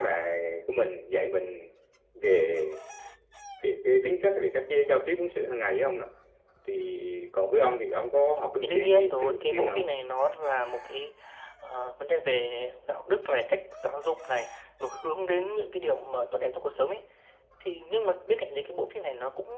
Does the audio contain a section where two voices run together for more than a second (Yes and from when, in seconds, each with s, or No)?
Yes, from 8.6 s